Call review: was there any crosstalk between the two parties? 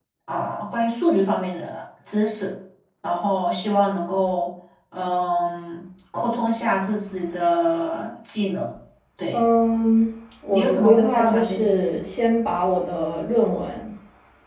Yes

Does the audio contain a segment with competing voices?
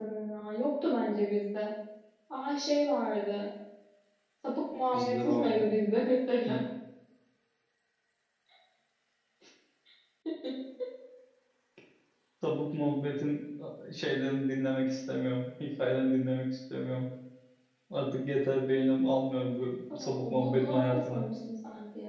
Yes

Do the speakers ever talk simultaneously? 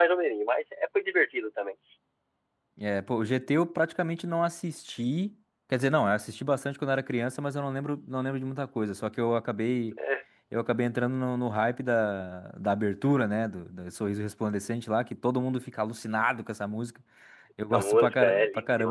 Yes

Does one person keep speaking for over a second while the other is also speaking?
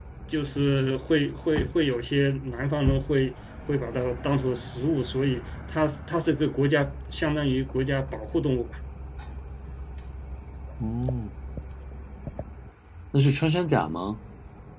No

